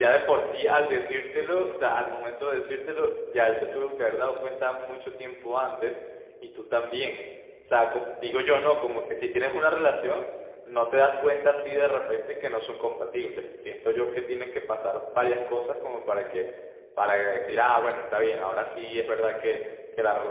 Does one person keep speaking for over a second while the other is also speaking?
No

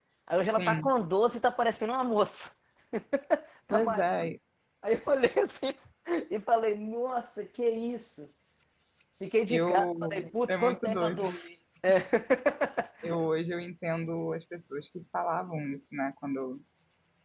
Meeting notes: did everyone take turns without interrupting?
No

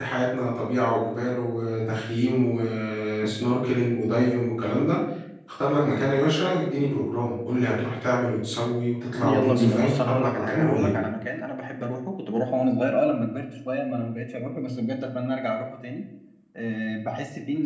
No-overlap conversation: No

